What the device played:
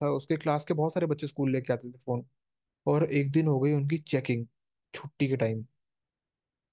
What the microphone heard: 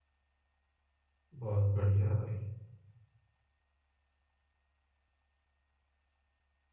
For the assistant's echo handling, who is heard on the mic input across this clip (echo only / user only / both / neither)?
user only